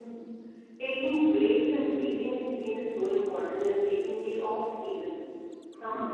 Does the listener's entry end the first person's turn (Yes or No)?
No